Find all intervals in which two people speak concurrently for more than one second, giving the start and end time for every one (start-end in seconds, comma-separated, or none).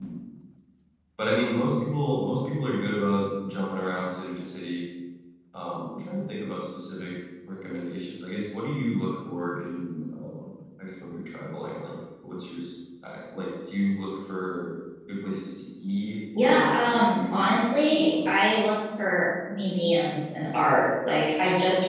16.4-18.1